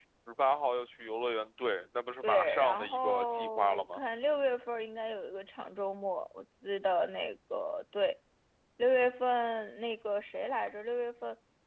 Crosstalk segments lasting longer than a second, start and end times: 2.2-4.0

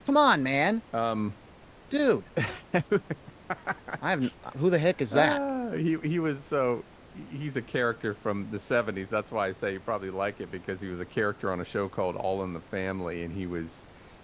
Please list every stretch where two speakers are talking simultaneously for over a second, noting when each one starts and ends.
none

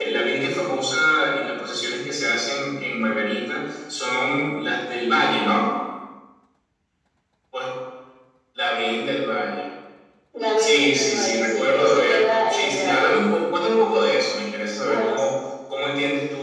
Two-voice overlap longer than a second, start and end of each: 10.6-13.2

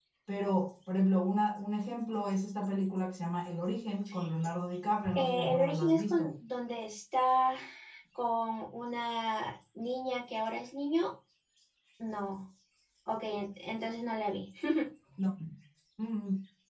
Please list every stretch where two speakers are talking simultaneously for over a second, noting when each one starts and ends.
5.0-6.3

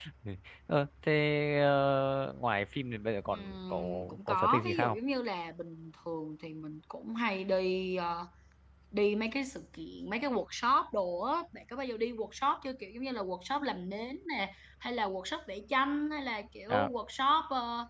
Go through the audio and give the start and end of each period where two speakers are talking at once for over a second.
3.3-5.0

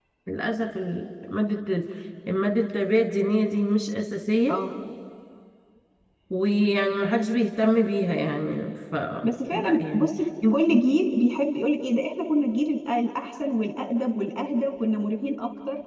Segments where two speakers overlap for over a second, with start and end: none

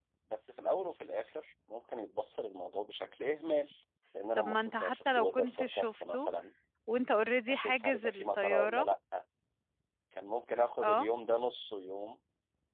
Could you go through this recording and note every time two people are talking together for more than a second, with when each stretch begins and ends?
4.4-6.3, 7.5-8.8

